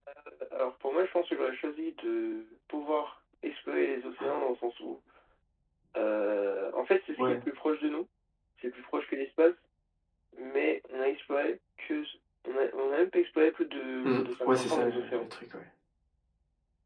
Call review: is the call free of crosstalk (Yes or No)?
No